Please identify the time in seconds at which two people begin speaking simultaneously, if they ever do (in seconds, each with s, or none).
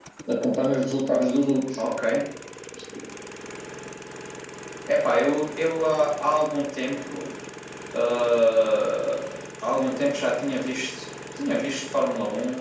none